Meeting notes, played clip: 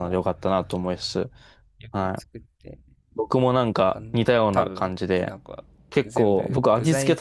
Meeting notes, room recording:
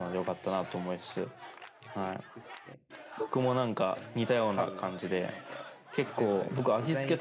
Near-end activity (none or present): none